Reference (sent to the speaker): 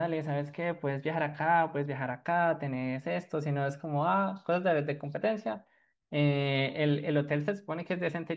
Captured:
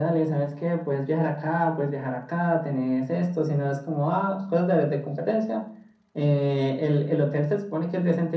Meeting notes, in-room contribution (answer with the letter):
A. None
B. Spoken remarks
A